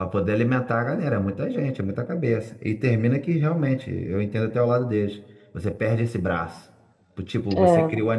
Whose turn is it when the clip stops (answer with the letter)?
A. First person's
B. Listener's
A